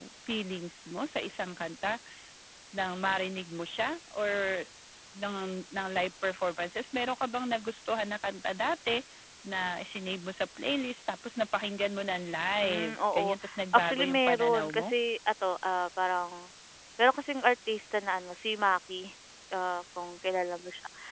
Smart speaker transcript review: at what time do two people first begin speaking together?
13 s

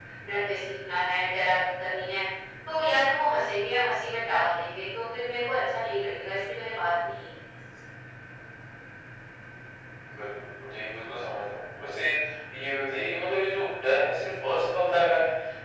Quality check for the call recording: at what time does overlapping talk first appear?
none

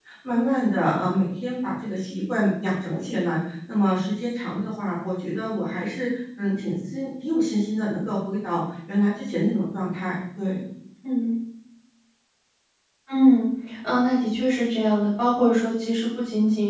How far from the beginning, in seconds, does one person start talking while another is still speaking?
none

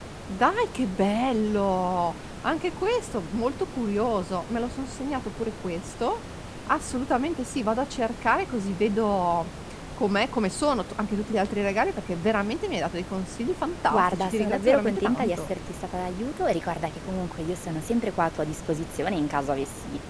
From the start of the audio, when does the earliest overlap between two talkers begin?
14 s

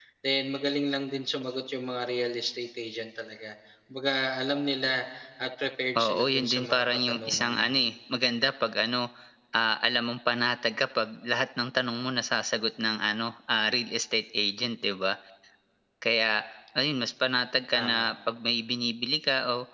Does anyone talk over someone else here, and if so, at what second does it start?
6 s

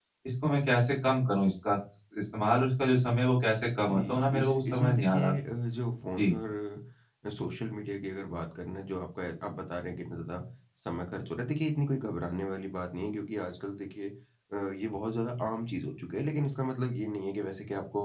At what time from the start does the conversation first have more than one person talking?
4 s

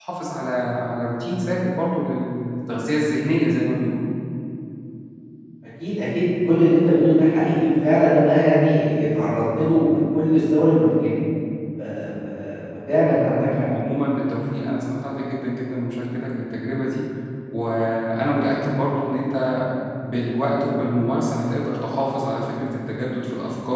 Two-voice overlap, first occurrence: none

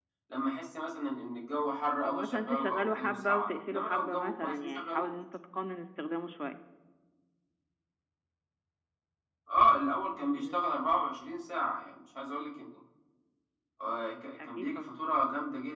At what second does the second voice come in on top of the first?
2 s

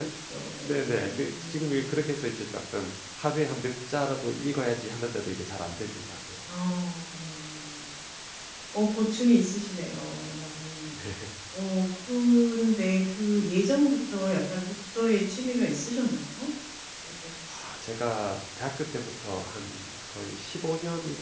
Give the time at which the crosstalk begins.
1 s

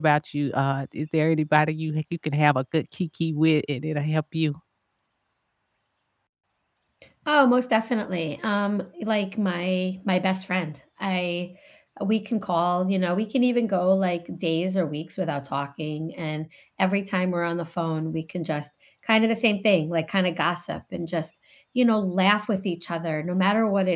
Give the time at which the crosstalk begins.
none

